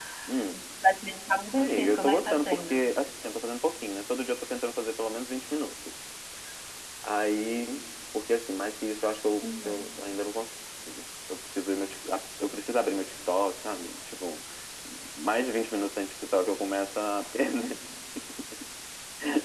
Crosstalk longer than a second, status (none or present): present